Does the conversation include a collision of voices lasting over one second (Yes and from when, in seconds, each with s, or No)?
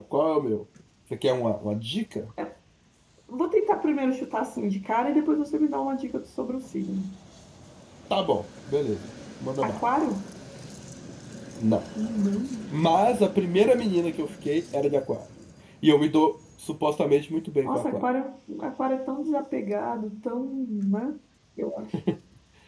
No